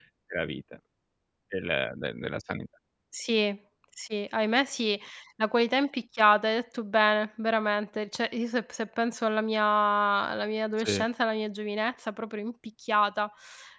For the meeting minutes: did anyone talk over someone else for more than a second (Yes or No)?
No